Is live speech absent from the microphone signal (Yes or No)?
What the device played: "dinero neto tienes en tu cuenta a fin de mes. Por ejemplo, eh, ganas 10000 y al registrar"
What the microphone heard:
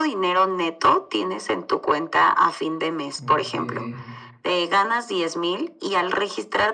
No